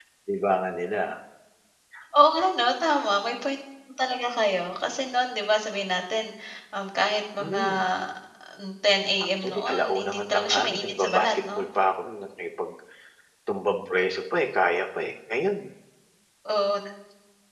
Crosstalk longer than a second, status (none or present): present